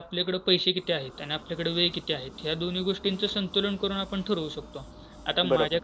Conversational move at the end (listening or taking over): listening